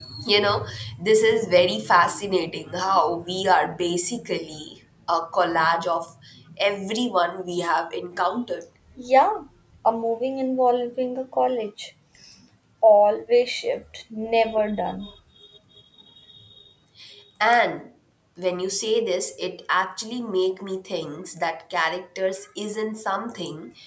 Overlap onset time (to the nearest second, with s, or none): none